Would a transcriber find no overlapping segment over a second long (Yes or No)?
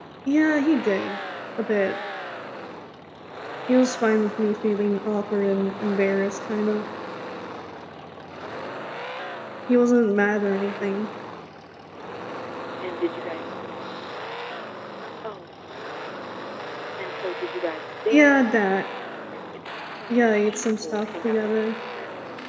No